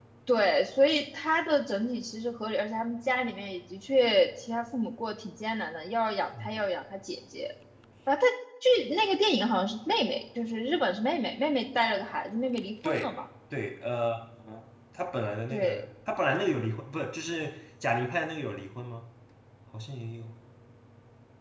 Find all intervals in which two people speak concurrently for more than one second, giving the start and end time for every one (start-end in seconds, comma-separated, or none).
none